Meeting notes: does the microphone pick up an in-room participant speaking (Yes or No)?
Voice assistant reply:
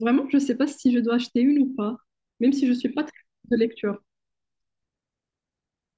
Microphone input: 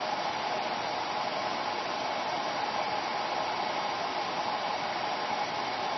No